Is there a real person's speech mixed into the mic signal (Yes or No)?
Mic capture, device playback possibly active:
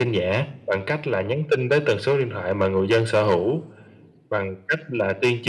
No